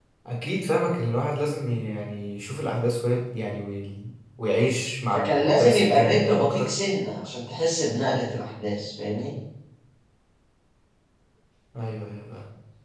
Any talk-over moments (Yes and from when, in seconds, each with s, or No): Yes, from 5.1 s